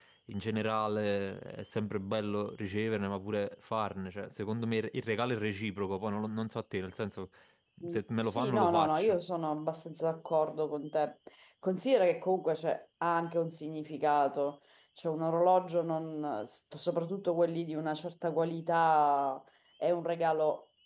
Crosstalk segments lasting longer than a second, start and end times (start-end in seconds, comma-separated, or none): 7.9-9.2